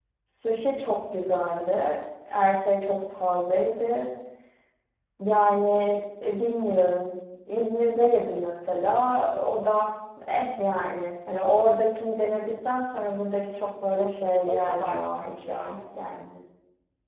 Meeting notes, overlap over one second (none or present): present